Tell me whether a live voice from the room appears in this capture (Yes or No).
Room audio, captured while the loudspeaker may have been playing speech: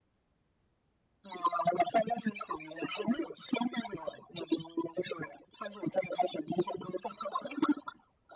No